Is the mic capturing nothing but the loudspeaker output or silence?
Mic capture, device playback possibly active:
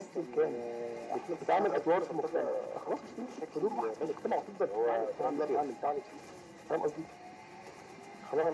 Yes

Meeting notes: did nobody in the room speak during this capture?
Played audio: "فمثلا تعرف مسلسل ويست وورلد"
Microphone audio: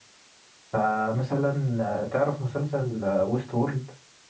Yes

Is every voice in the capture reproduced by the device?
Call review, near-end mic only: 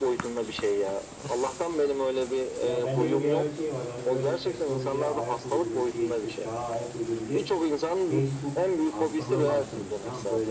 No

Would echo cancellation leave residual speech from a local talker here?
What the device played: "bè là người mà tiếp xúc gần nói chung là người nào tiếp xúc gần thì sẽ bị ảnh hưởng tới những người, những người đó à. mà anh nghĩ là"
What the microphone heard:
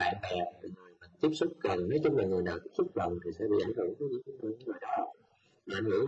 No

